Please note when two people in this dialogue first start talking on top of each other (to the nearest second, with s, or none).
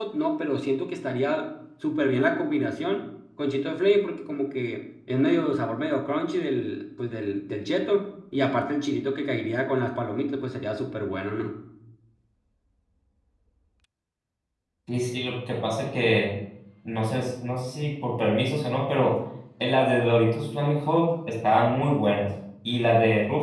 none